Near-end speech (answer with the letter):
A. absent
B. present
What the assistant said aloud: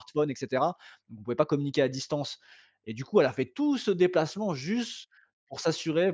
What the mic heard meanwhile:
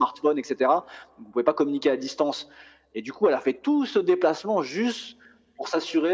A